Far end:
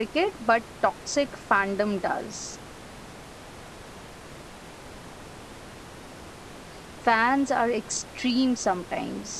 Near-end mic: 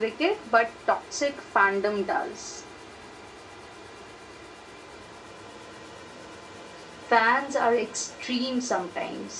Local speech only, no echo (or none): none